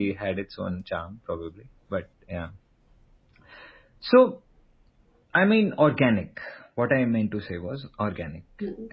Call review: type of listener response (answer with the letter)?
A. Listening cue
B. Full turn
A